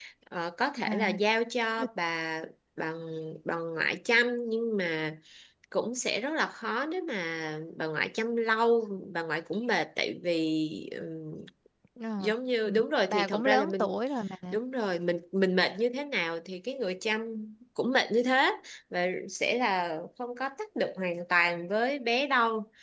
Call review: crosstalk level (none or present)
present